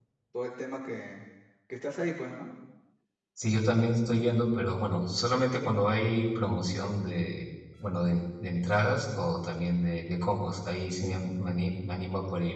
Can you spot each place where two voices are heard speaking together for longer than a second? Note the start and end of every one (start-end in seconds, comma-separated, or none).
none